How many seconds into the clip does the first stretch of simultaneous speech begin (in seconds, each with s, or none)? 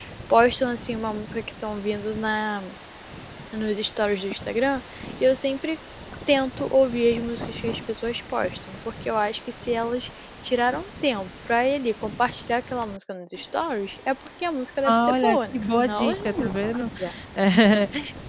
14.8 s